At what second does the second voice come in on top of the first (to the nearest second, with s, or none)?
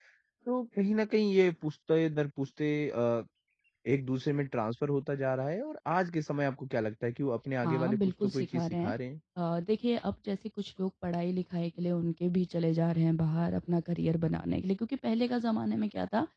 8 s